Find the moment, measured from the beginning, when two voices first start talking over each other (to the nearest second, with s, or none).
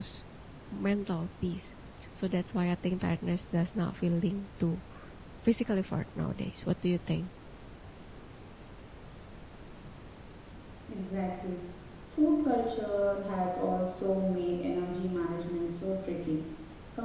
none